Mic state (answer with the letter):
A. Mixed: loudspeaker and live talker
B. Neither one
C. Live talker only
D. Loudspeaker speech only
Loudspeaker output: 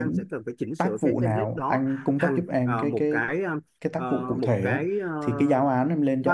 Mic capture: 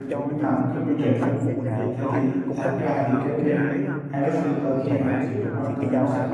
A